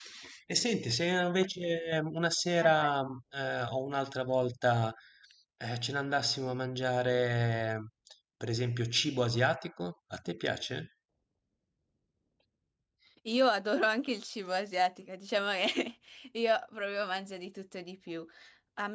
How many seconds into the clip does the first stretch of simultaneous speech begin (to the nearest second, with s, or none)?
none